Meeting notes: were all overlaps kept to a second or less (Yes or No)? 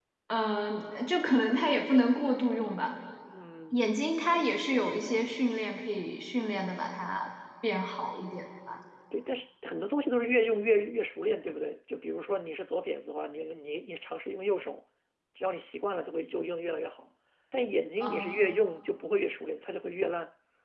Yes